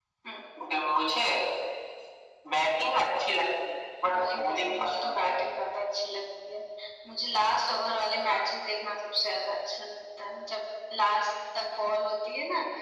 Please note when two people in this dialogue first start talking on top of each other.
4.0 s

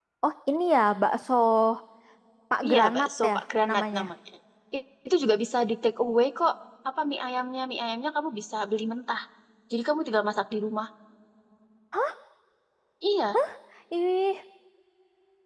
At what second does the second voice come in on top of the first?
2.6 s

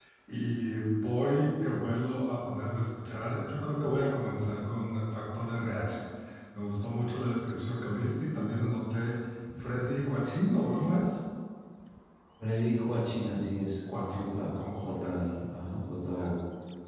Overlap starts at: 13.9 s

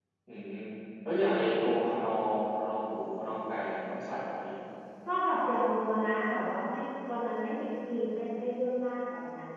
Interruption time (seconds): none

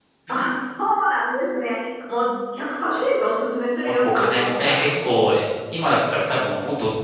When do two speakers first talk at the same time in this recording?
3.8 s

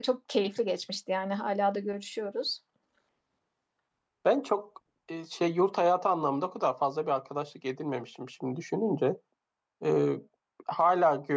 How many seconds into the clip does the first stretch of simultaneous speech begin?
none

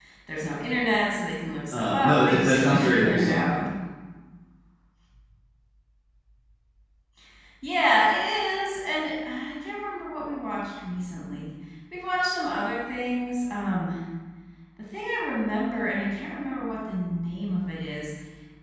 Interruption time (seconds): 1.7 s

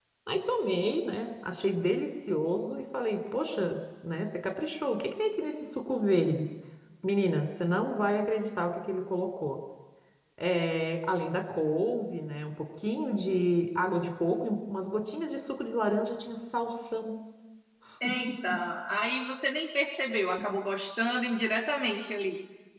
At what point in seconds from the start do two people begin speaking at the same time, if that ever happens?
none

